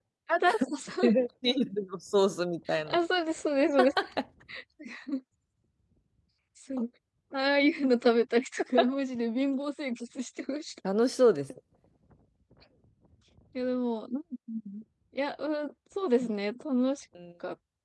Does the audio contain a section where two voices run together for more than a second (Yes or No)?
No